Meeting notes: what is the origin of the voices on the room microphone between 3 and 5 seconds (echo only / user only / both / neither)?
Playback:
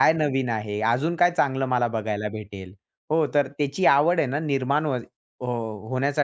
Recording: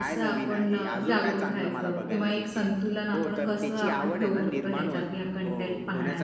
both